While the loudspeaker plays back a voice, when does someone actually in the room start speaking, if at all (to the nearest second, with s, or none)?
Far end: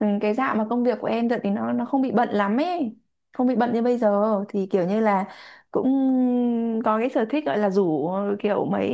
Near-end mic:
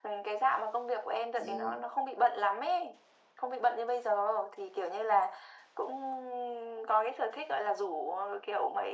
1 s